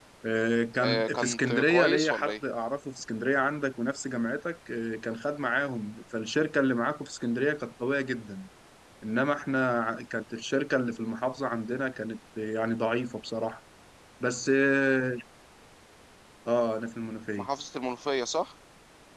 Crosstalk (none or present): present